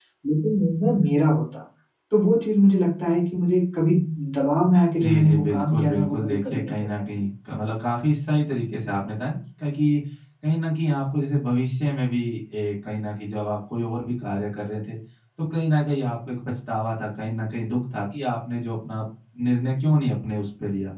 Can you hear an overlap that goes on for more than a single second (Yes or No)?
Yes